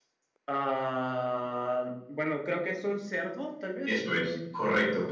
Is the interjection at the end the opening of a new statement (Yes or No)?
Yes